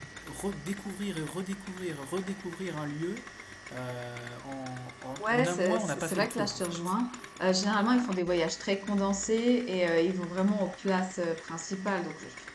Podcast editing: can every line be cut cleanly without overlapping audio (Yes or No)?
No